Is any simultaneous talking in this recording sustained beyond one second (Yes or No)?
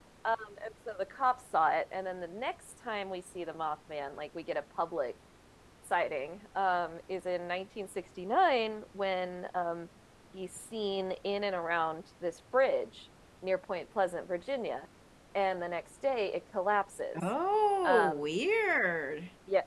No